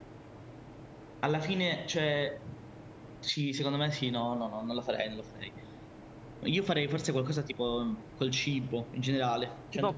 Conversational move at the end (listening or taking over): taking over